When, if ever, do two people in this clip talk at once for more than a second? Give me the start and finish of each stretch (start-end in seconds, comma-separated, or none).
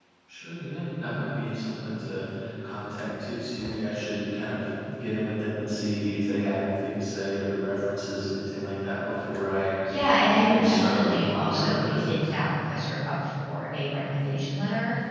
10.3-12.2